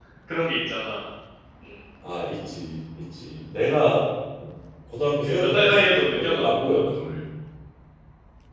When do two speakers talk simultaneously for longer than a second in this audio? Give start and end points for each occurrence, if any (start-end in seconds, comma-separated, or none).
5.2-7.2